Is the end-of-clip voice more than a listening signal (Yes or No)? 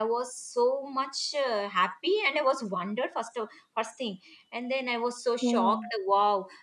No